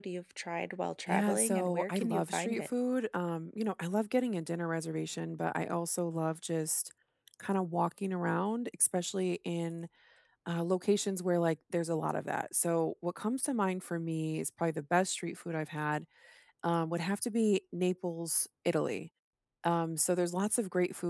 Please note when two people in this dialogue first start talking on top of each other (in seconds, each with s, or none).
1.1 s